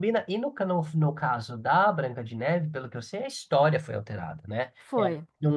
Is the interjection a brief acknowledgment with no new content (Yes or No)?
Yes